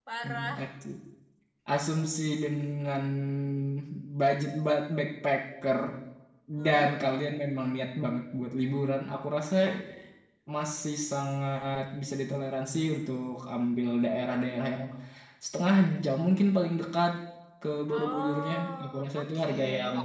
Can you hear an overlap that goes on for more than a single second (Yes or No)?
Yes